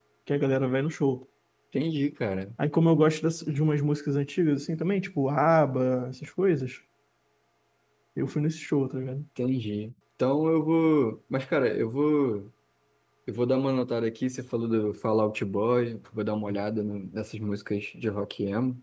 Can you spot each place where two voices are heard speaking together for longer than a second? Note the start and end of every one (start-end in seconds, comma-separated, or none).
none